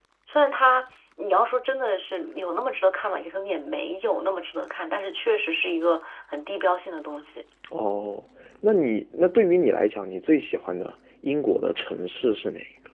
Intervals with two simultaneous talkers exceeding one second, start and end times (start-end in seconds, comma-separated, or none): none